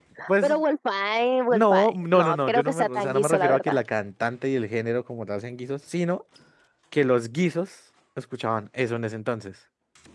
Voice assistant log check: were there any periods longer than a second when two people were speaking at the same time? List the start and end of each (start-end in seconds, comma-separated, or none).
1.5-3.8